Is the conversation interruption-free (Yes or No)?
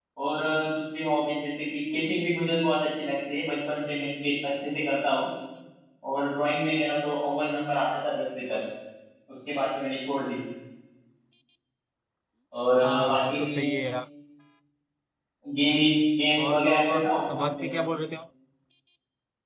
No